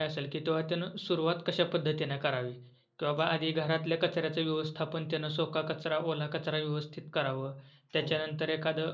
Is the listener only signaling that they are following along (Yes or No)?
Yes